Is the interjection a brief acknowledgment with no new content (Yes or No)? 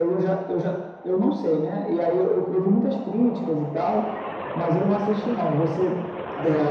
No